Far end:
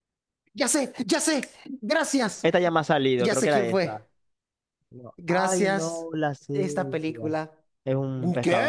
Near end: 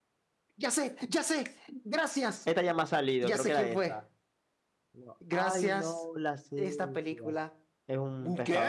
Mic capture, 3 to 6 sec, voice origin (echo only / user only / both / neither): echo only